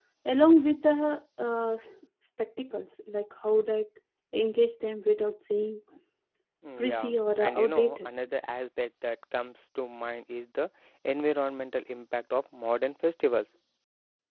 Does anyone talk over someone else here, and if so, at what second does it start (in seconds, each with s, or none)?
6.8 s